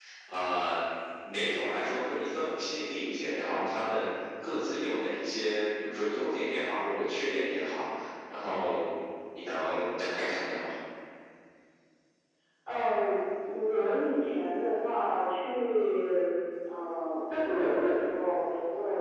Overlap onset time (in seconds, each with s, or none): none